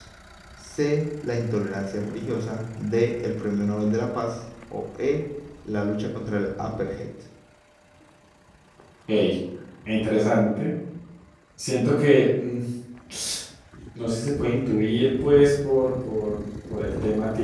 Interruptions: none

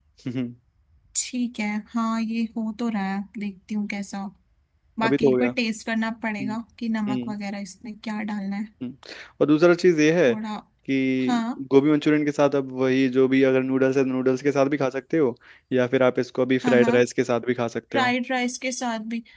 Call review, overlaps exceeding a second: none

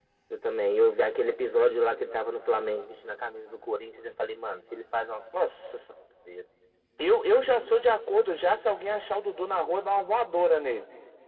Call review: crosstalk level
none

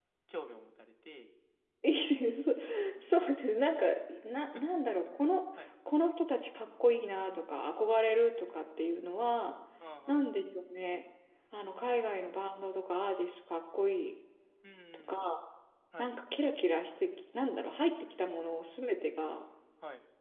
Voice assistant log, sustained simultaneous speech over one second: none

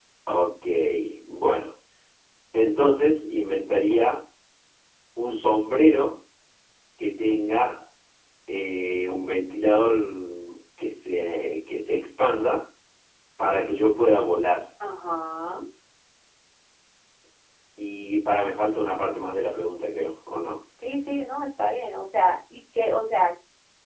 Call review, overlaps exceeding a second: none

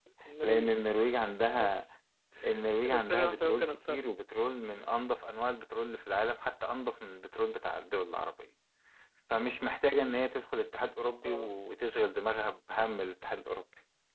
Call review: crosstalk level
present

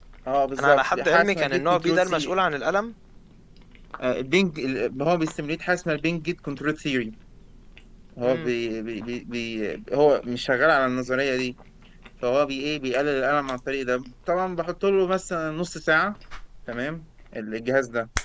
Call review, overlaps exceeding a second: present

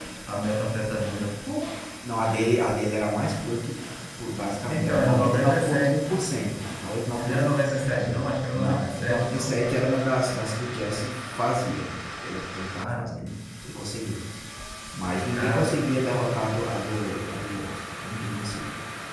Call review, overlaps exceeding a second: present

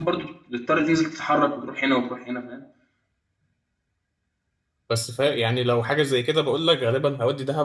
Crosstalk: none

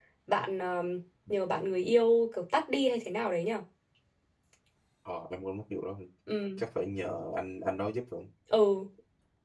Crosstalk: none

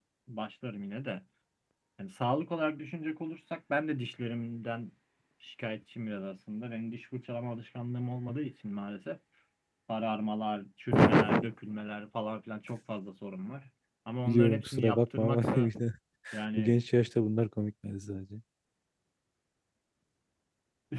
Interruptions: present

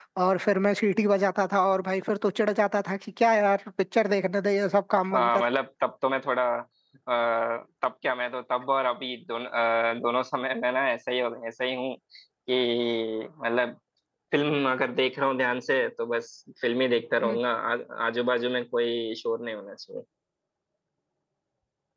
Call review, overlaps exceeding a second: none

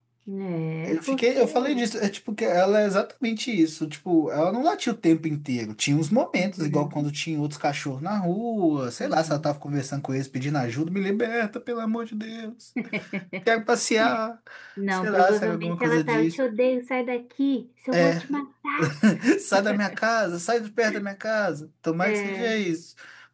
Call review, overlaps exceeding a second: present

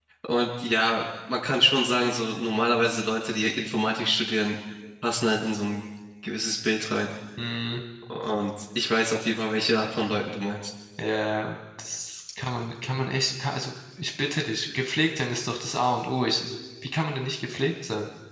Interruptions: none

